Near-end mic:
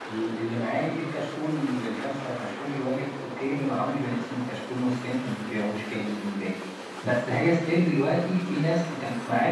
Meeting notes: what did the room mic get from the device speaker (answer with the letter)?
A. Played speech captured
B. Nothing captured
B